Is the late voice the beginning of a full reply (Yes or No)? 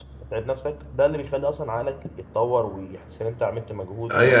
Yes